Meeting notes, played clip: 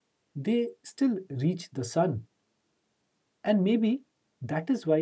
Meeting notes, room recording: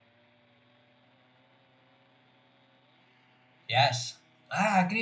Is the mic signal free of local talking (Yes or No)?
No